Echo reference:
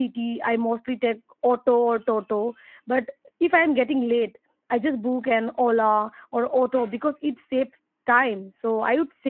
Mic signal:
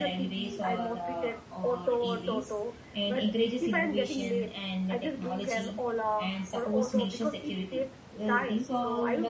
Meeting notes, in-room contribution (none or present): present